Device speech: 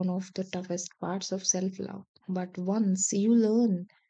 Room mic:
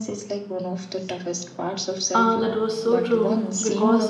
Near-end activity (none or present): present